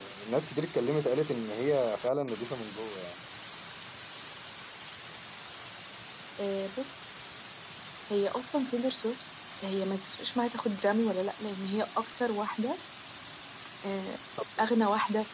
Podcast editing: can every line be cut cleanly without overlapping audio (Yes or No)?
Yes